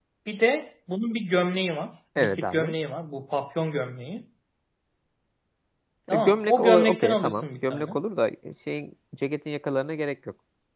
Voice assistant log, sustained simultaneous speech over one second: present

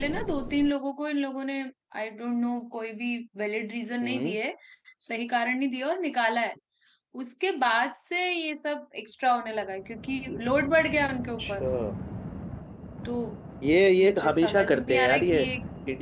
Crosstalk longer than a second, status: present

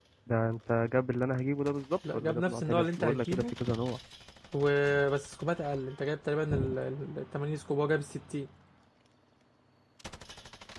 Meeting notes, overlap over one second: present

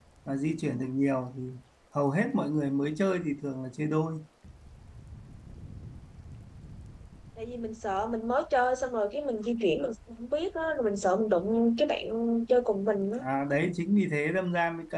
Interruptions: none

